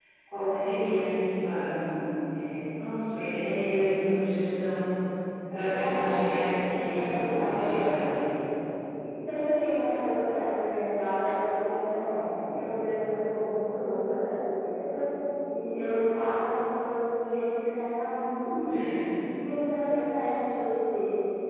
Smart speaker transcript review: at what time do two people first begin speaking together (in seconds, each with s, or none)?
5.6 s